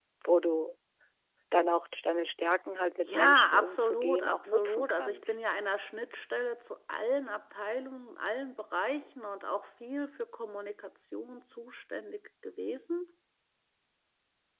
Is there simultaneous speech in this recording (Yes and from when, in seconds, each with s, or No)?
Yes, from 3.0 s